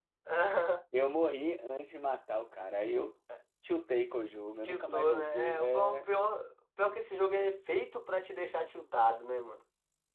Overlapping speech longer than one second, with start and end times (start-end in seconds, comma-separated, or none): 4.6-6.0